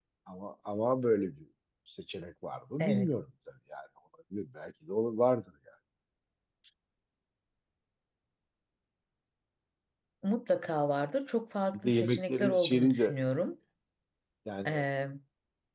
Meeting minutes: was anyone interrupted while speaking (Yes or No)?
Yes